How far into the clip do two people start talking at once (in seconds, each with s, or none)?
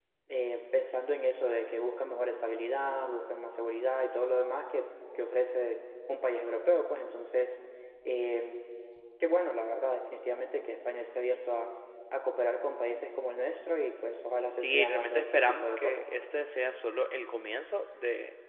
14.6 s